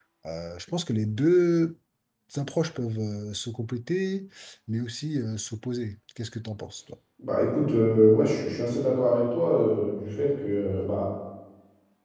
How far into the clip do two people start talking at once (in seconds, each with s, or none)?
none